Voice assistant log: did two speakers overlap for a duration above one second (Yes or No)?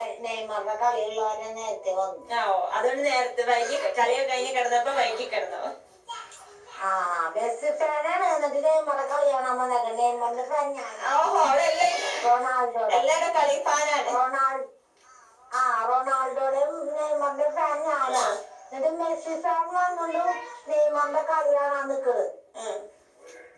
No